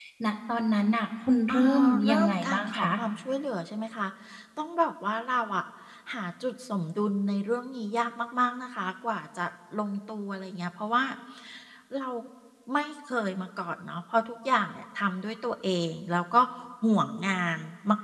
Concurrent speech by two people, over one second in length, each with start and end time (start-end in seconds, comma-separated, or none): 1.5-2.9